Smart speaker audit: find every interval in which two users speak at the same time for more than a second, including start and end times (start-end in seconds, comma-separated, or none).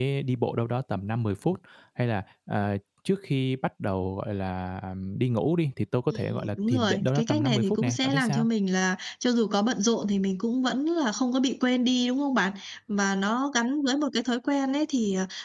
6.1-8.4